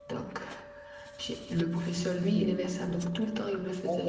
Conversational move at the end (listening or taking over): taking over